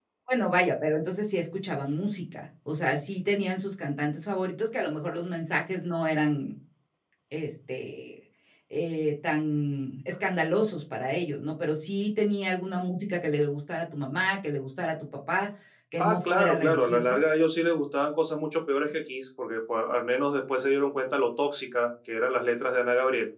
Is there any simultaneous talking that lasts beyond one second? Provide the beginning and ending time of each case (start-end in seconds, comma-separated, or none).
16.0-17.2